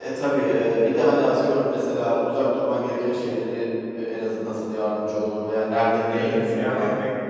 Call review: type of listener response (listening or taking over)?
taking over